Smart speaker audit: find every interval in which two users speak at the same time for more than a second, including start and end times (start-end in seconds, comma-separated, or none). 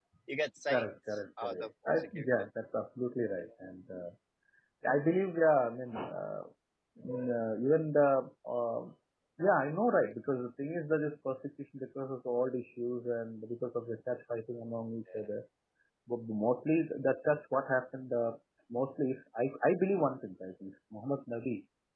0.7-2.3